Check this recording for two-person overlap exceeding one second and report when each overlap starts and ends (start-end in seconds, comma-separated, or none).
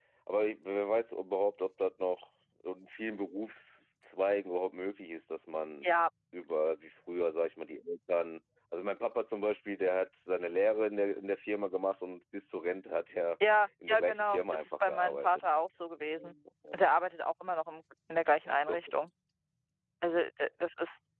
13.9-15.4